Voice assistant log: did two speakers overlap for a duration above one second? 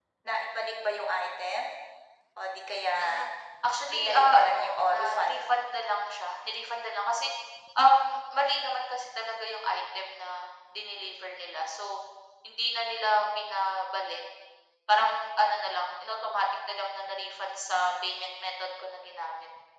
Yes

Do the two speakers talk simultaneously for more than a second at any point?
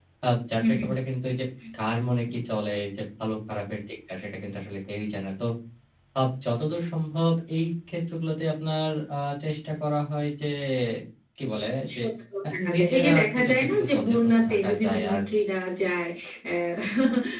Yes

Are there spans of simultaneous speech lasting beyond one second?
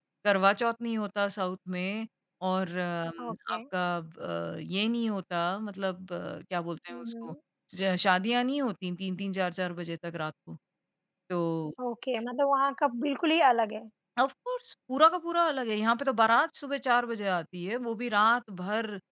No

